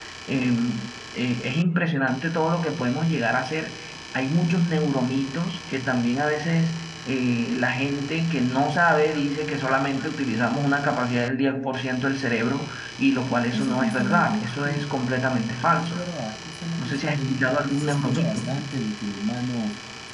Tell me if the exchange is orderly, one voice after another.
No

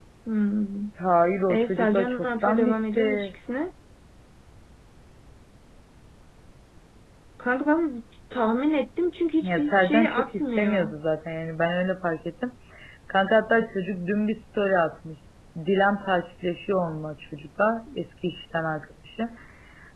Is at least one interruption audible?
Yes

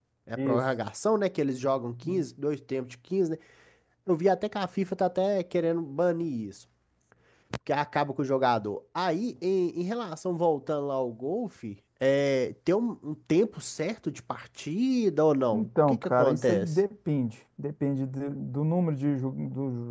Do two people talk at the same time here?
Yes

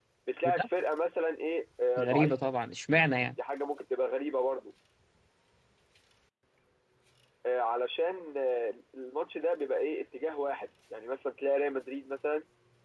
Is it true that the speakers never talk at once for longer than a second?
Yes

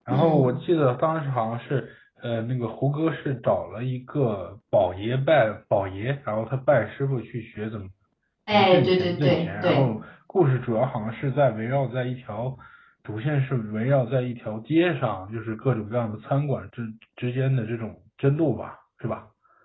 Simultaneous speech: Yes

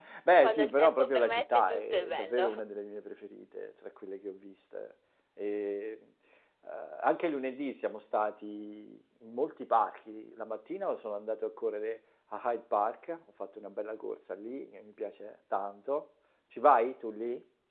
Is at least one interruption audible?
Yes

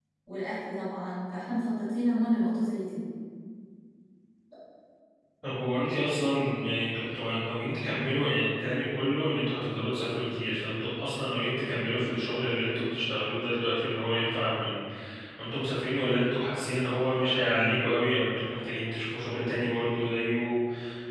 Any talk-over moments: No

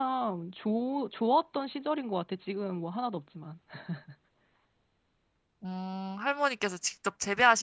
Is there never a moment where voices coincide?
Yes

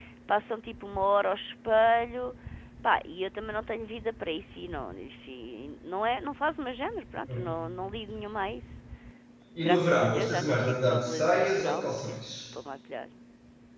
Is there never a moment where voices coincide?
No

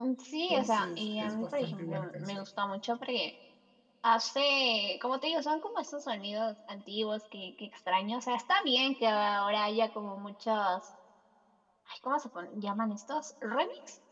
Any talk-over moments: Yes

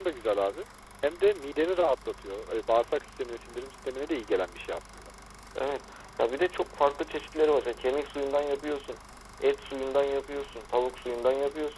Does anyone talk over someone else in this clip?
No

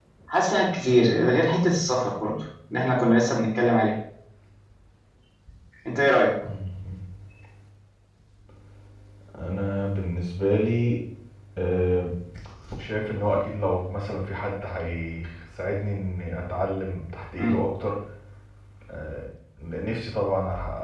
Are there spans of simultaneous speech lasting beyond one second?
No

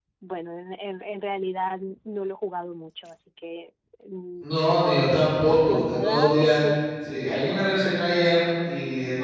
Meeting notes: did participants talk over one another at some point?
Yes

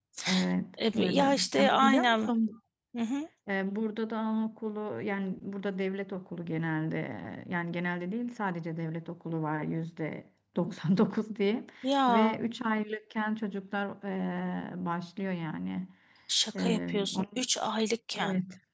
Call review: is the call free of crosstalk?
No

